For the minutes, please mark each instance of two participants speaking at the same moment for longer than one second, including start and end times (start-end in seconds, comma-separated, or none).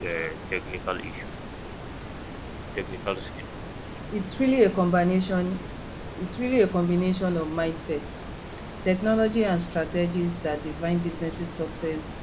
none